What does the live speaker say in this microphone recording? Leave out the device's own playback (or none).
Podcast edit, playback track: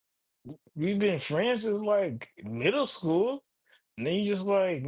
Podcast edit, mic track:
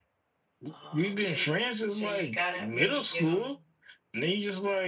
Um, so y so you gotta maybe give him